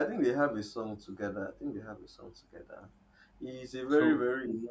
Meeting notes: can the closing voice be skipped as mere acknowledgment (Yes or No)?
Yes